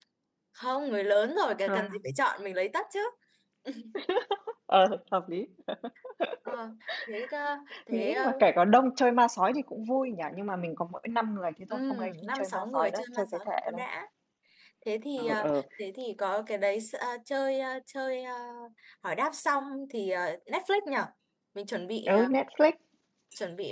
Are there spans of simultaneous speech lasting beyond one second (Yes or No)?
Yes